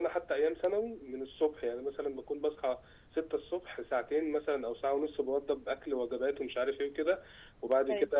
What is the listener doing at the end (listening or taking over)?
listening